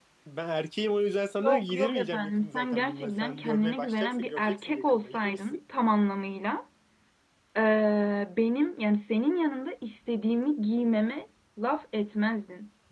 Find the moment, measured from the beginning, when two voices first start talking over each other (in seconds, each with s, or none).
1.4 s